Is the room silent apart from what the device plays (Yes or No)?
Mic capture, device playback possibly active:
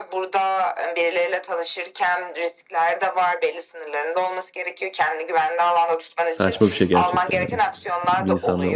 No